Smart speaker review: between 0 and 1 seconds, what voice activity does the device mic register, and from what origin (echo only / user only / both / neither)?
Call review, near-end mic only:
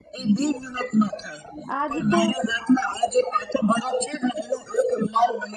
echo only